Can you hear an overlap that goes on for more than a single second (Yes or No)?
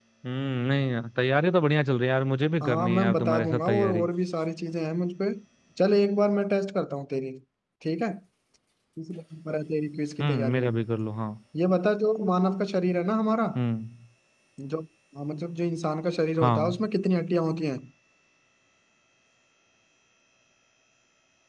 Yes